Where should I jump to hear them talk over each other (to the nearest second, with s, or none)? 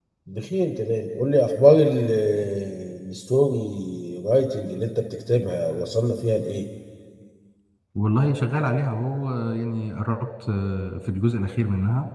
none